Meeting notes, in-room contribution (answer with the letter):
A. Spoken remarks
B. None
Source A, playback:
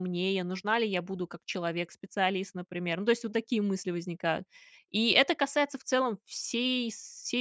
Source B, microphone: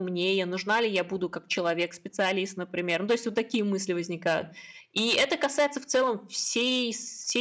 B